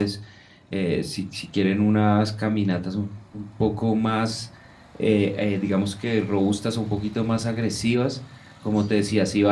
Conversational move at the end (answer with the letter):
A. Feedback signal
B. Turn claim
A